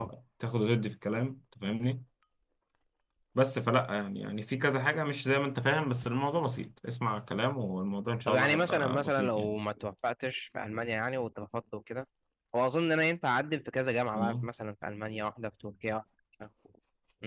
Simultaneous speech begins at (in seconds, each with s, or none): 8.3 s